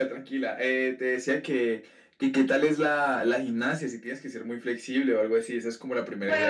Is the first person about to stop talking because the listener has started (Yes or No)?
Yes